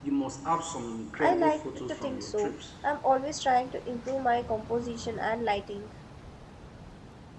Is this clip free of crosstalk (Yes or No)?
No